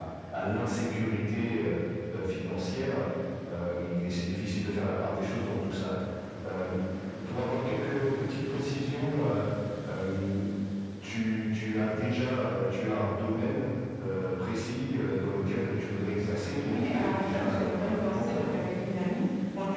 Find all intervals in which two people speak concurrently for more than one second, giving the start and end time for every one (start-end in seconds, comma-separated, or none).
16.7-18.5